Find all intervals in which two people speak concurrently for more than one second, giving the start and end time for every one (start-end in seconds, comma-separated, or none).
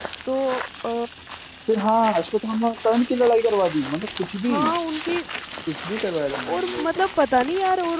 none